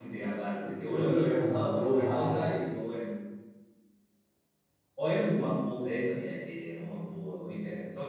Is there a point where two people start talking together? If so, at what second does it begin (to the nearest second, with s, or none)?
1 s